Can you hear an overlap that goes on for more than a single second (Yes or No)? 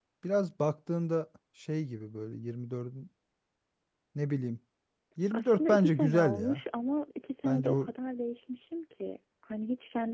Yes